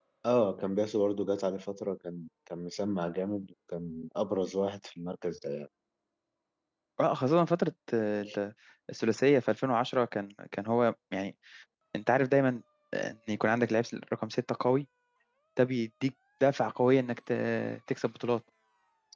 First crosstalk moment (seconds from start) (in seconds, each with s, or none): none